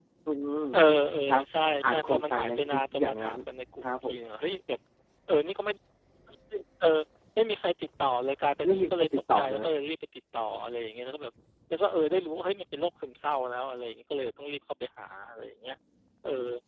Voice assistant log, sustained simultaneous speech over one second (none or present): present